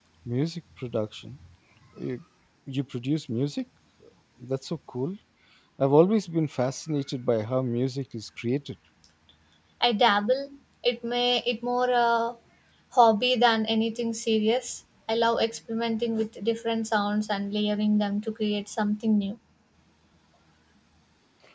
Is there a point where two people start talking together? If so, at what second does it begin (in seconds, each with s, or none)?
none